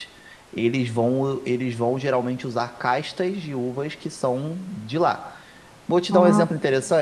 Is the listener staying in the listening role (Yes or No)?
Yes